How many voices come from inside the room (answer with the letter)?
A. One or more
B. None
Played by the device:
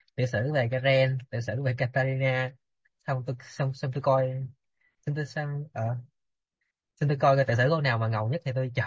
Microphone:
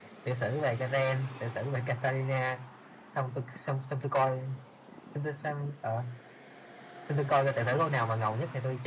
B